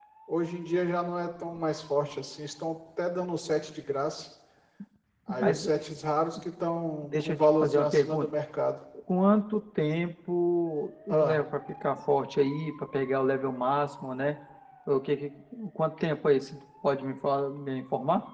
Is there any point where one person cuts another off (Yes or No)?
Yes